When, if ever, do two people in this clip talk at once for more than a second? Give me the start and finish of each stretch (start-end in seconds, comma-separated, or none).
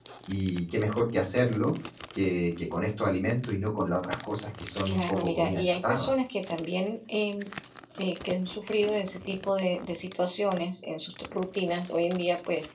4.9-6.1